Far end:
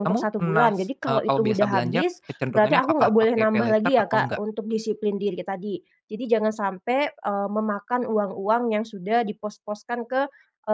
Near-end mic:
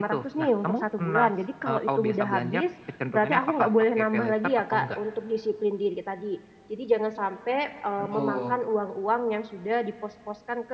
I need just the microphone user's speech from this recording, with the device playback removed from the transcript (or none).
Betul.